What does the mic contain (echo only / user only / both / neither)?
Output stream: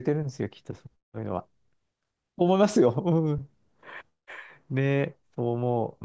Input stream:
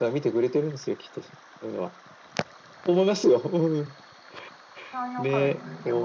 both